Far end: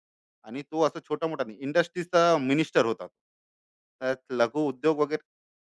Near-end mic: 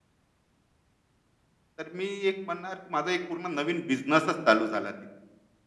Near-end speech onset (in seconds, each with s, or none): 1.8 s